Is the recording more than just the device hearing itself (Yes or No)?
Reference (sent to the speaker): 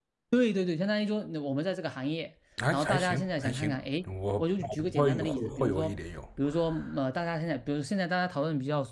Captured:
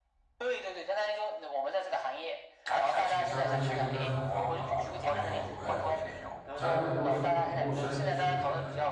Yes